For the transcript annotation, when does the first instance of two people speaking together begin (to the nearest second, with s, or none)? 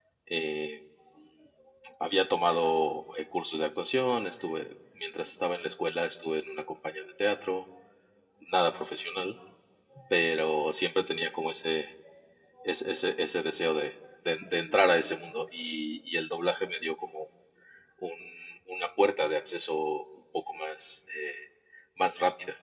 none